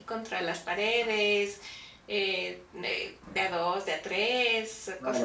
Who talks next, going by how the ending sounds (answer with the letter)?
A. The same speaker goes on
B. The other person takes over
B